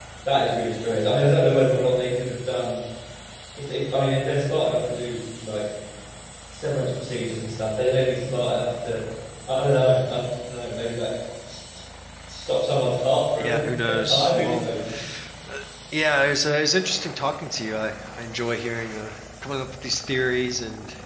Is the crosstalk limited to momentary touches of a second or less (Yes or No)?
No